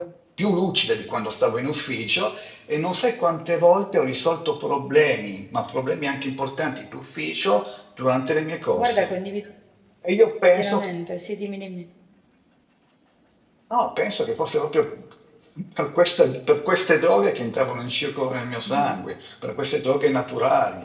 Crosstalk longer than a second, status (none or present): none